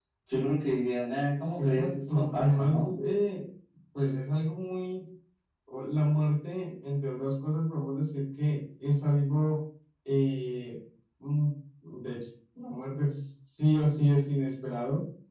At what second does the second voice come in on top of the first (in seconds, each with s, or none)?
1.6 s